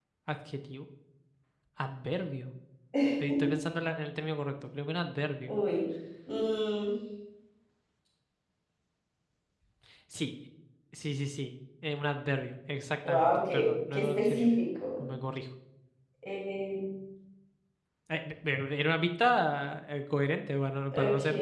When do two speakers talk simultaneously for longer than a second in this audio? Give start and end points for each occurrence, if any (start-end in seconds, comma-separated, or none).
13.1-14.5